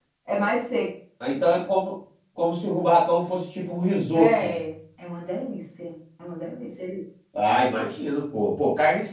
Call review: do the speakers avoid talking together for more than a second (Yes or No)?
Yes